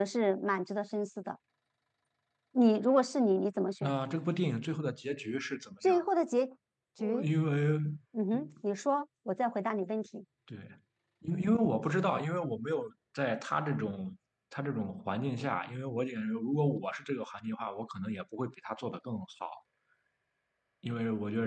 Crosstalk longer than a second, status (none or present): none